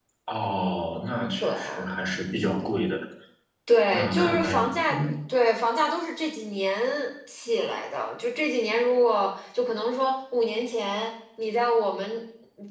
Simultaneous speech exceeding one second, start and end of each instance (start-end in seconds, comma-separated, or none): 3.9-5.1